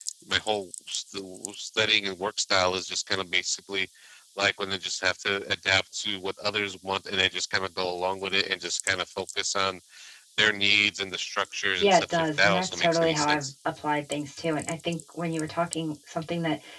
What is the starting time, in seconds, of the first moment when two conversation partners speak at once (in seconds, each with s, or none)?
11.8 s